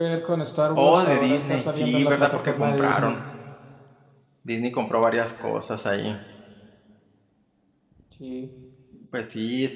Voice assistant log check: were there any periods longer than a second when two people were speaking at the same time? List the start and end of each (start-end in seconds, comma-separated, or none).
0.8-3.1